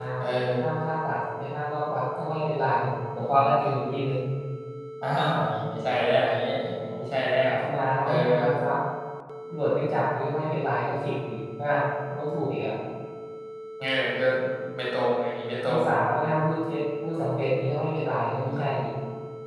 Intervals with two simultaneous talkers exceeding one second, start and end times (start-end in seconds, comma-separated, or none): none